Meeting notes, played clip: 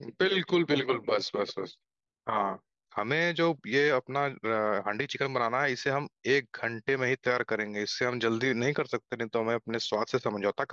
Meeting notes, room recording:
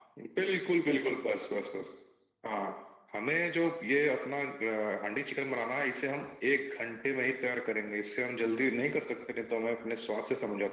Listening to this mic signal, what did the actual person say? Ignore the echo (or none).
none